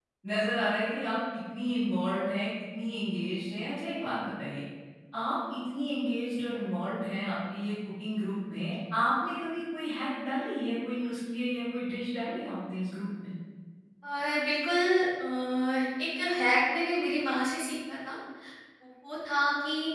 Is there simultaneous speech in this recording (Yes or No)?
No